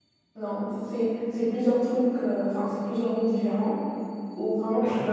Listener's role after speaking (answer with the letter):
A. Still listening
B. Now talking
A